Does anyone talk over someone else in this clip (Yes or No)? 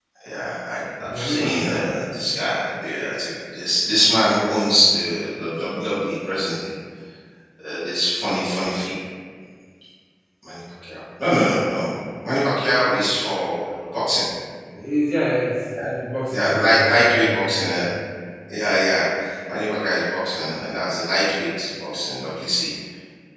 Yes